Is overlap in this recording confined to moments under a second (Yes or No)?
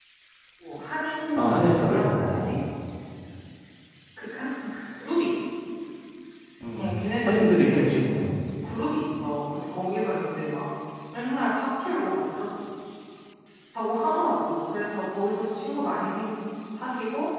No